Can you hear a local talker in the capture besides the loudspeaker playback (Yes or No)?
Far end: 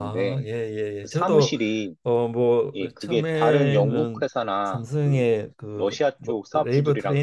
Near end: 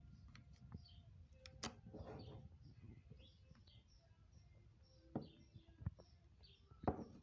No